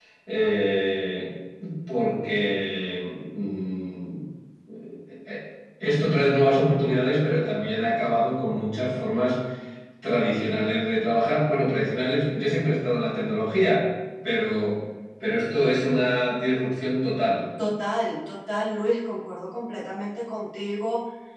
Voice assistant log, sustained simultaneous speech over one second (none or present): none